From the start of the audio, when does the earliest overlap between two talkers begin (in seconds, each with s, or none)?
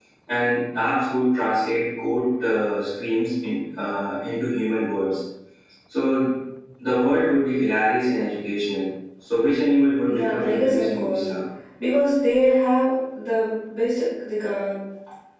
10.0 s